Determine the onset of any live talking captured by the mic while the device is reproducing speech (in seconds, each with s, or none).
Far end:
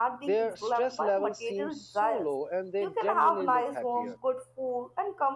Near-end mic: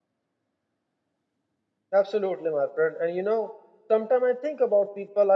2.0 s